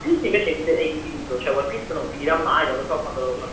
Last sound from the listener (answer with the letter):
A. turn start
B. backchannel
A